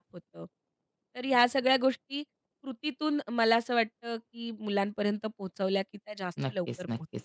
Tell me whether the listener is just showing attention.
No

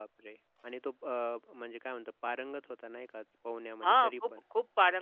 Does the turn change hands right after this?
Yes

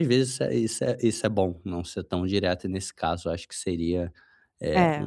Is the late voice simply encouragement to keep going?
Yes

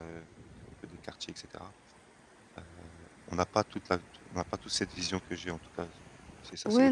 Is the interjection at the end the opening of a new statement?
Yes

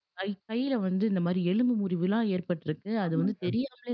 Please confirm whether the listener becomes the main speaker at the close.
No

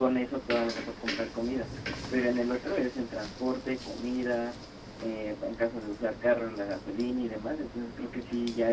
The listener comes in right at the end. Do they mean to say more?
No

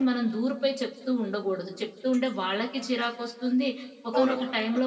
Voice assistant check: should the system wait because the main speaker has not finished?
Yes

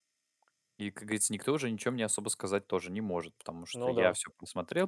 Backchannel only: Yes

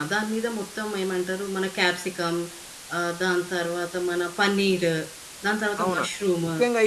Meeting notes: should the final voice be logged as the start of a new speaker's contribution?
Yes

